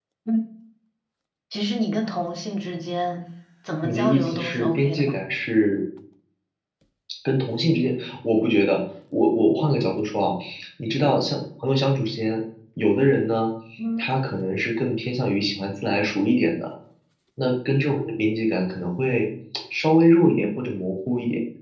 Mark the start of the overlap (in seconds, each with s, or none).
3.8 s